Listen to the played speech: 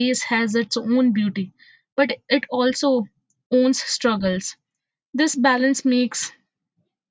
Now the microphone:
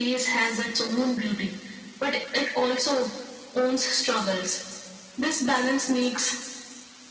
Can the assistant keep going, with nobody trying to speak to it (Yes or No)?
Yes